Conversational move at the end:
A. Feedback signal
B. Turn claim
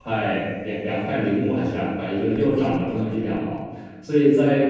A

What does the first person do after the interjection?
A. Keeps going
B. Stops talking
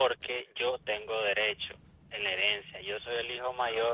A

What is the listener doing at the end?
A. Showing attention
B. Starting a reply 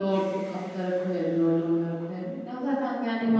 B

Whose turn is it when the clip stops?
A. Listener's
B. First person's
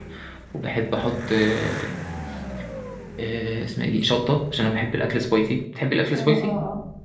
A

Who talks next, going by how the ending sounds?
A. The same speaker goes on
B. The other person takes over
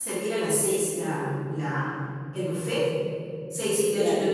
A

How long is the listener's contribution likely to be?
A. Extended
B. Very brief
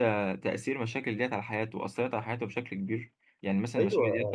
A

